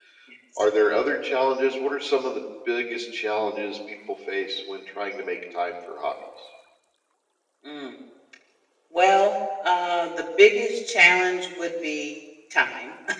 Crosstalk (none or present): none